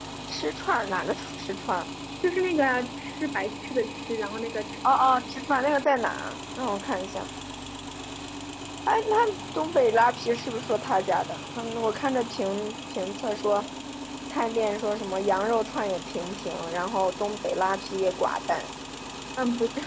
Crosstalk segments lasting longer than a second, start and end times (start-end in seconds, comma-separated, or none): none